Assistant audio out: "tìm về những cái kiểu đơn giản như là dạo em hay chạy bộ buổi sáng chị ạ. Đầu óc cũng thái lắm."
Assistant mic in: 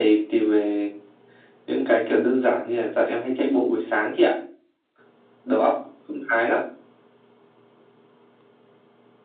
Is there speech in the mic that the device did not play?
No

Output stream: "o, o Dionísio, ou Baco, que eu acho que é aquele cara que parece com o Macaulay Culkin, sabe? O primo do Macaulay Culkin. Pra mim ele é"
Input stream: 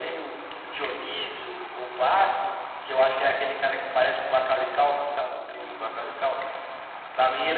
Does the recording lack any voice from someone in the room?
Yes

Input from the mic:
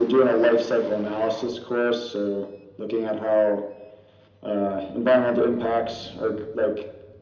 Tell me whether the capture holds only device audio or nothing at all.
Yes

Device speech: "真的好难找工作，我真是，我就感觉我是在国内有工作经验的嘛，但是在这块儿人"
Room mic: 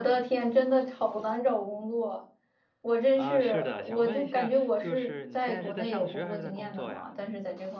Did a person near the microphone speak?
Yes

